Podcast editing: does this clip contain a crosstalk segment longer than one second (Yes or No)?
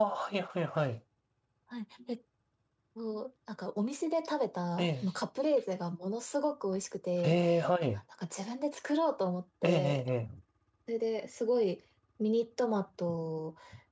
No